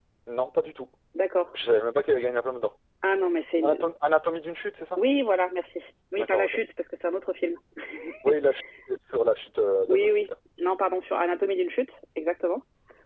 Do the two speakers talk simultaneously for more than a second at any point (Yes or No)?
No